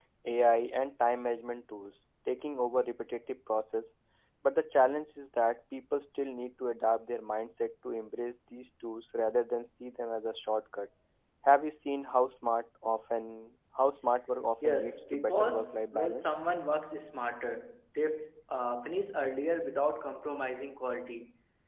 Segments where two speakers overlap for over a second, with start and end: 14.6-16.4

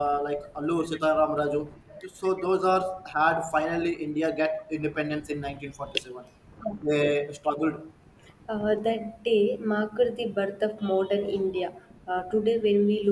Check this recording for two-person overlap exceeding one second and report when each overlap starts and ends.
none

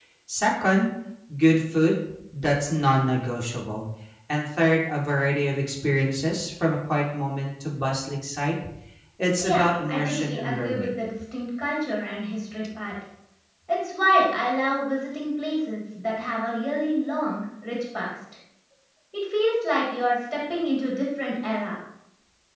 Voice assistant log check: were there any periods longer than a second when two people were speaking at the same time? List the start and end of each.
9.4-10.9

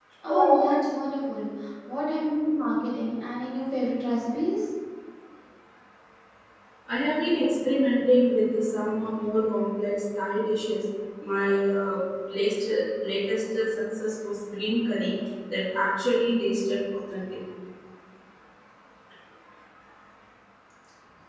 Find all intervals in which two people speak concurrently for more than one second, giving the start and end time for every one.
none

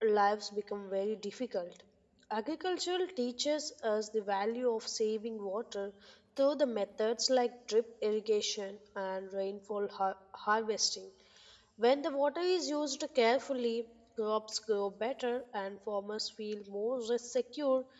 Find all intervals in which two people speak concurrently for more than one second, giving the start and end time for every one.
none

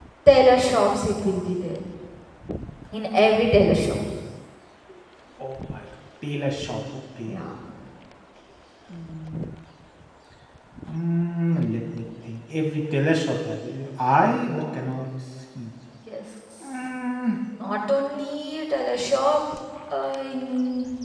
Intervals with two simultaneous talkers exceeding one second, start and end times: none

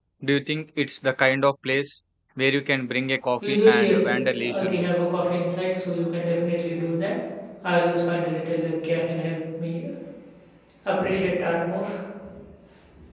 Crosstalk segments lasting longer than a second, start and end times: 3.5-4.9

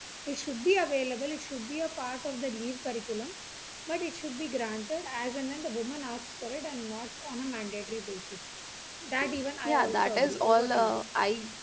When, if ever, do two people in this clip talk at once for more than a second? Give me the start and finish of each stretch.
9.6-10.9

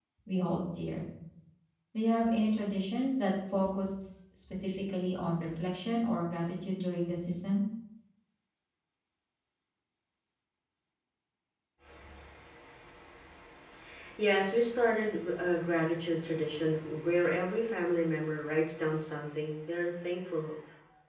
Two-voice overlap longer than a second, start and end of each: none

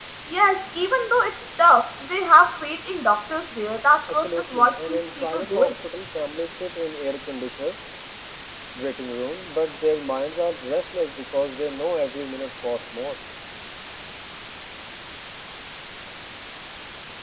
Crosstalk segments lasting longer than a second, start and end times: 4.1-5.7

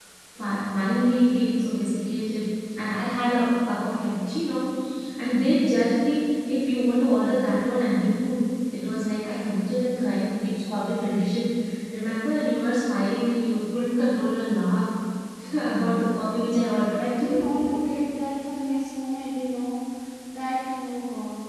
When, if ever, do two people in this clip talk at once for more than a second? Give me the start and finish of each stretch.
none

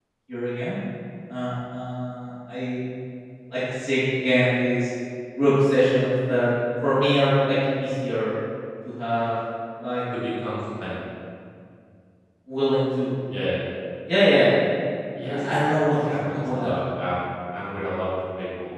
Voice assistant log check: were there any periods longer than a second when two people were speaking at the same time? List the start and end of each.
15.3-16.7

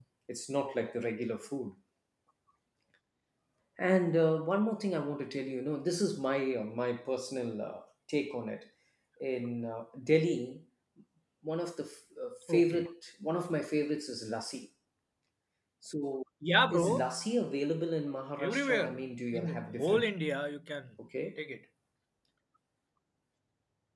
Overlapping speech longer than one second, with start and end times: 18.4-20.0

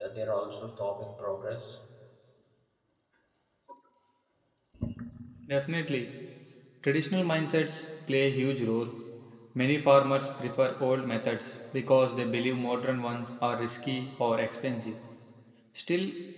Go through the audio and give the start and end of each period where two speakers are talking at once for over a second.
none

